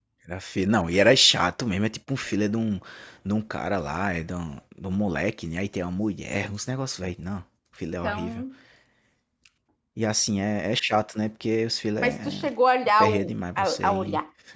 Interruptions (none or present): present